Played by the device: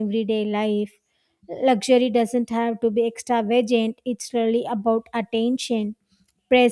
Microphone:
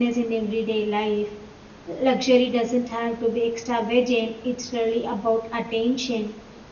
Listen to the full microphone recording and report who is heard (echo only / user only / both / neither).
echo only